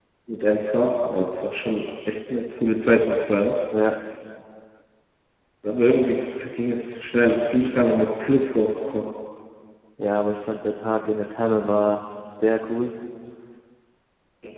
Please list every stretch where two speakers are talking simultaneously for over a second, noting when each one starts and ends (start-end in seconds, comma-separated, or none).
none